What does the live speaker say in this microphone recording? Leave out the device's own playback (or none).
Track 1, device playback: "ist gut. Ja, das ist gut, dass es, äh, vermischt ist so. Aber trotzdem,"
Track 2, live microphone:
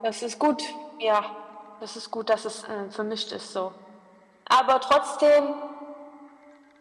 none